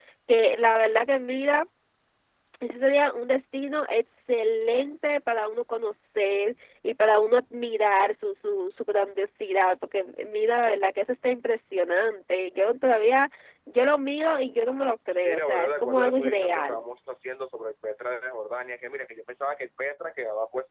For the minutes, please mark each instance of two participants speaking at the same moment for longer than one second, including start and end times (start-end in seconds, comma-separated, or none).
15.2-16.8